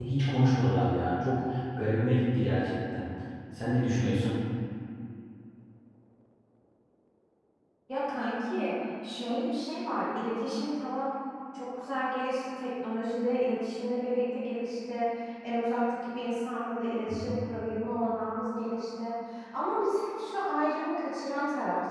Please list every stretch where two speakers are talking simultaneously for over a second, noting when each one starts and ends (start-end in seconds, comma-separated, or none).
none